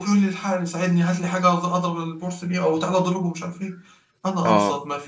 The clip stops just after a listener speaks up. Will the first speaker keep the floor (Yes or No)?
Yes